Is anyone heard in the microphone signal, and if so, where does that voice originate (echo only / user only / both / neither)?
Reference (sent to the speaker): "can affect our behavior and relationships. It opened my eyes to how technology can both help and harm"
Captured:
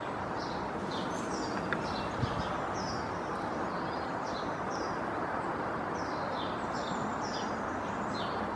neither